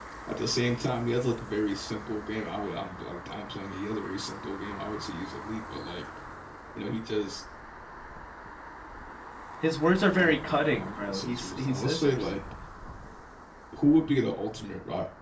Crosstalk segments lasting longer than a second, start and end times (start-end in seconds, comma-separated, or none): 10.1-12.2